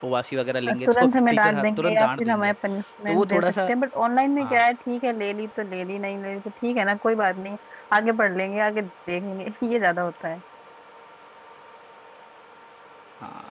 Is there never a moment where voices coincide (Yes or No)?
No